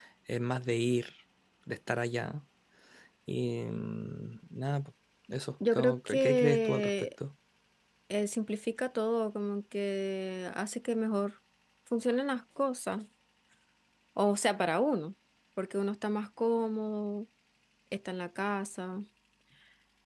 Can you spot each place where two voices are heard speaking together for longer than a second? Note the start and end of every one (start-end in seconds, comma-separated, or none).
5.7-7.1